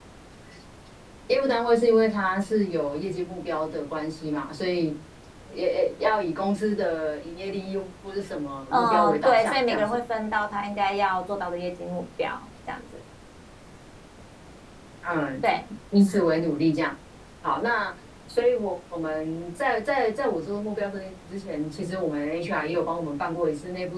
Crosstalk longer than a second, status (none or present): present